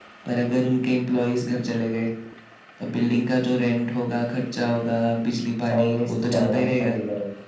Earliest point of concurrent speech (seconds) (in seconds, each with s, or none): 5.7 s